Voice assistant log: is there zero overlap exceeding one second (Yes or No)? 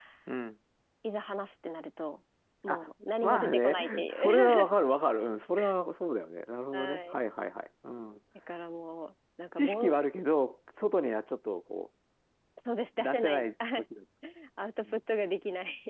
No